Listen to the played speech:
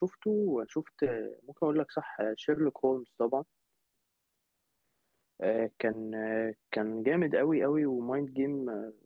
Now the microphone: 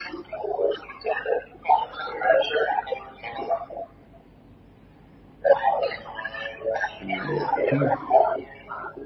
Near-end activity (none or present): present